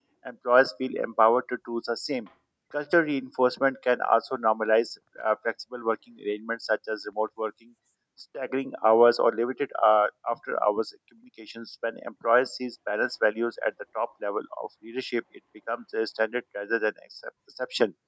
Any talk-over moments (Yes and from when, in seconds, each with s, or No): No